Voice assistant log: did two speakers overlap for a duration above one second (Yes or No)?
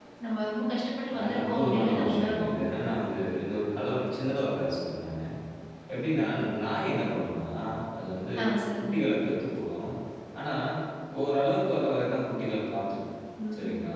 Yes